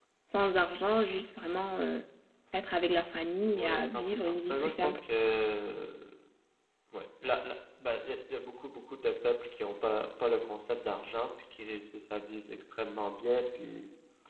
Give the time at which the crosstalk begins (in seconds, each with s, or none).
3.4 s